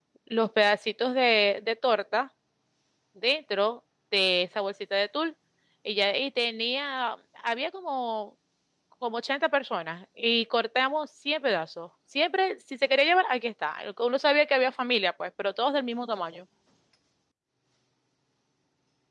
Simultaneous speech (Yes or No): No